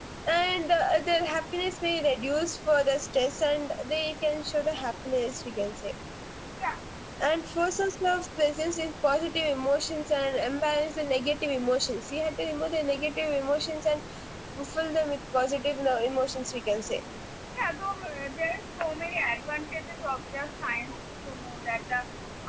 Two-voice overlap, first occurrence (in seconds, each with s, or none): none